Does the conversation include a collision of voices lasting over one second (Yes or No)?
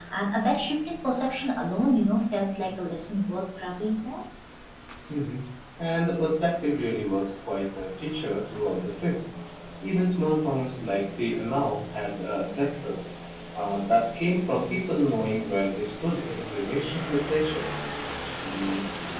No